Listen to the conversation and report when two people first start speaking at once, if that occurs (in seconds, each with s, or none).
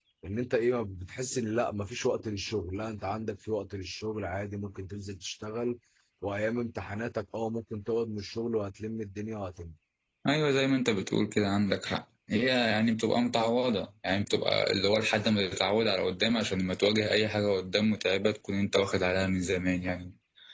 none